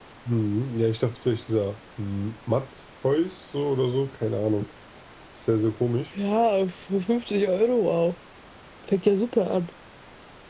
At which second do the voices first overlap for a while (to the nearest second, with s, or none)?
none